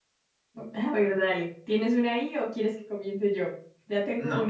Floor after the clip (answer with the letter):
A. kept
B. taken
B